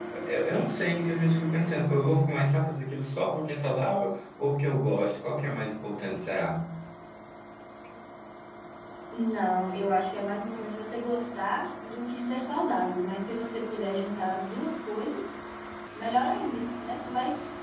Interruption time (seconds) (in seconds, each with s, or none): none